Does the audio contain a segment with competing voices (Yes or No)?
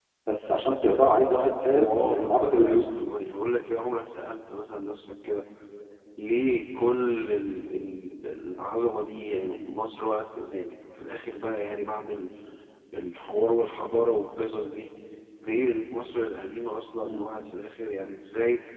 Yes